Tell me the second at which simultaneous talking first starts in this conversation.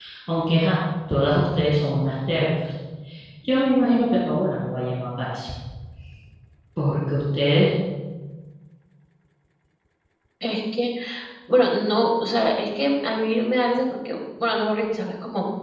none

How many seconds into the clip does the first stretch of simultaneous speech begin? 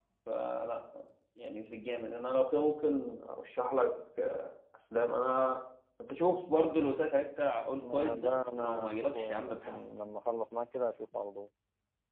7.8 s

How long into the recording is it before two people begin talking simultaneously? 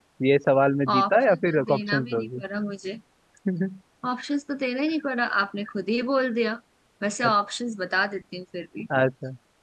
0.9 s

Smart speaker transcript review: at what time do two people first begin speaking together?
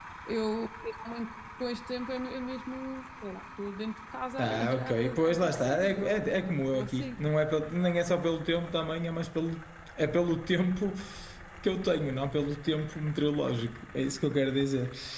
4.4 s

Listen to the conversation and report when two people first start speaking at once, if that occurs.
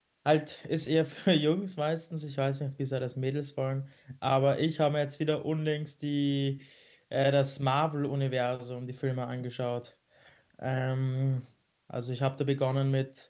none

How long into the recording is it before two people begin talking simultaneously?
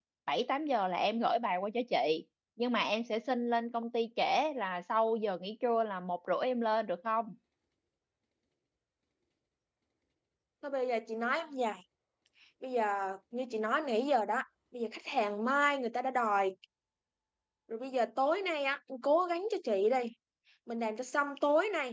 none

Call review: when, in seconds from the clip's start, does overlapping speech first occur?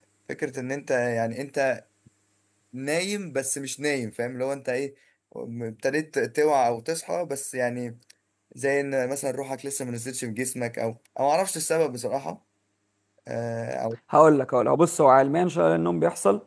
none

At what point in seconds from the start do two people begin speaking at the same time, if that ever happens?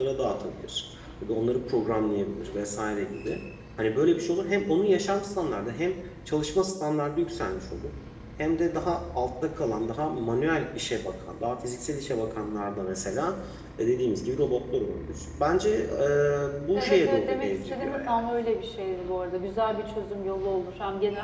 16.7 s

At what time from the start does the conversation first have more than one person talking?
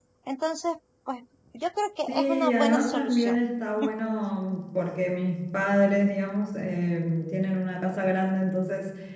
2.1 s

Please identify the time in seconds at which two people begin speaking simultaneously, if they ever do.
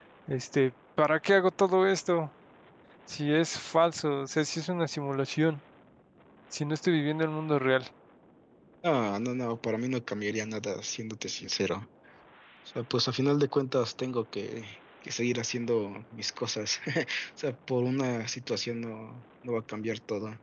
none

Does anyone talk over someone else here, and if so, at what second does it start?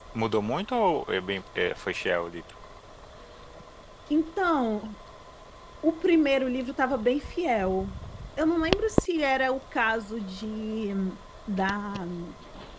none

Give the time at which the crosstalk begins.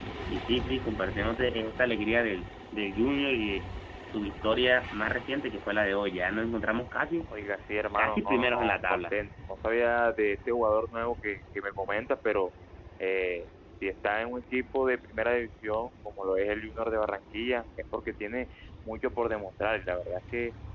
8.0 s

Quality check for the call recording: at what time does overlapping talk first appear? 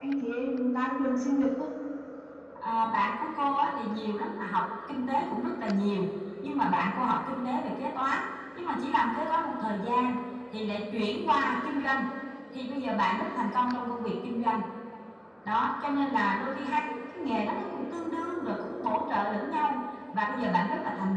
none

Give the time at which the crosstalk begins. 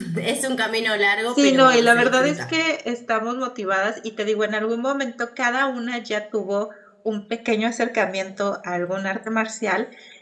1.4 s

